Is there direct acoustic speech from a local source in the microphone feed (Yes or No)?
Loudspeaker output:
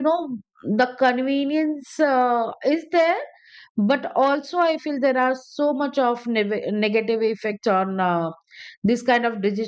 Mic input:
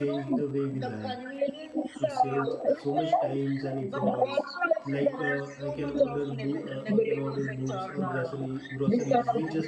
Yes